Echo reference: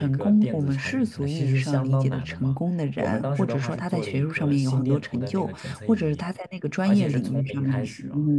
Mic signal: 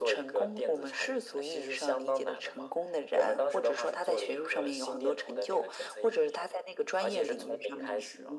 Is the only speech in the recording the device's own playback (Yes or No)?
Yes